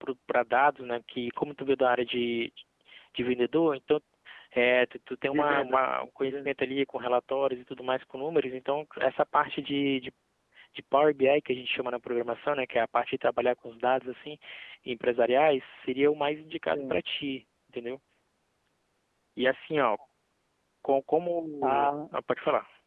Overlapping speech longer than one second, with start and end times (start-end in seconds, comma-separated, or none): 5.3-6.5